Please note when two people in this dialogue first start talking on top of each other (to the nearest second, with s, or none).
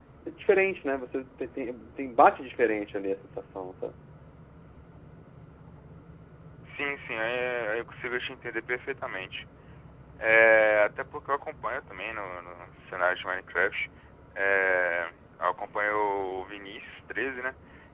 none